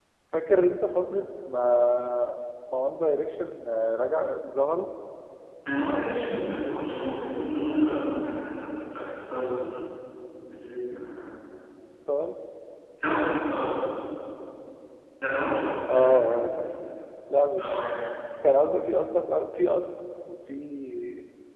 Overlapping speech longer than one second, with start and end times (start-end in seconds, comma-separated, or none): none